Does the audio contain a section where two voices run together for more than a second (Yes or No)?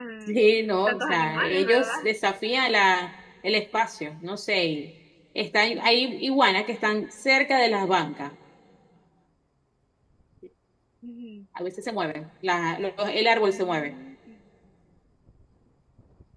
Yes